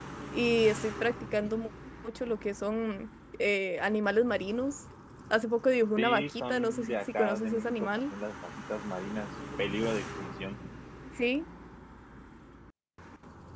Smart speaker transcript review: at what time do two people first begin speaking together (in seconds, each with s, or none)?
6.0 s